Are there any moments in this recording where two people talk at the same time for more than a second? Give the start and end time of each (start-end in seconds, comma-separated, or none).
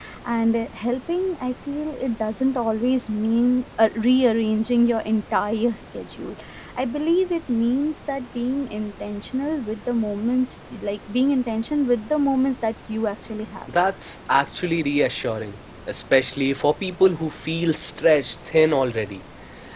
none